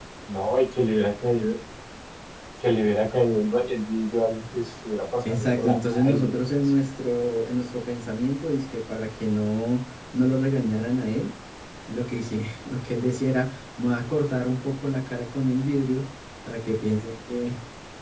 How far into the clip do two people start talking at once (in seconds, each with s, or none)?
5.2 s